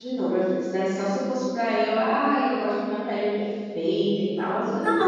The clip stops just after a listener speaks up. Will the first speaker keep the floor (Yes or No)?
No